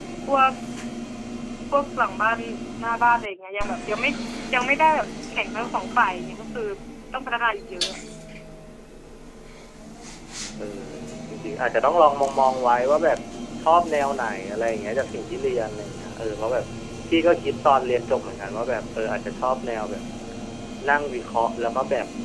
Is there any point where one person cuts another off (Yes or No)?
No